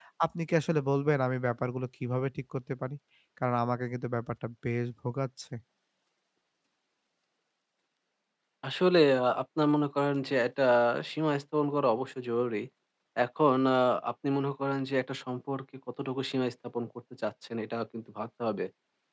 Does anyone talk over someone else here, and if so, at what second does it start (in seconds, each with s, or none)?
none